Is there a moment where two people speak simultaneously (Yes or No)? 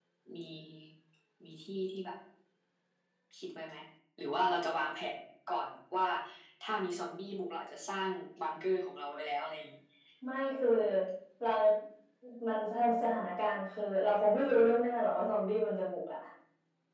No